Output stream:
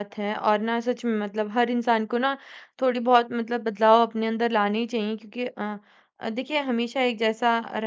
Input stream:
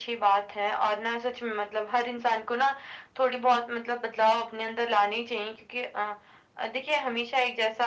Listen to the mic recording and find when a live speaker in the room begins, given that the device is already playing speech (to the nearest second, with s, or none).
none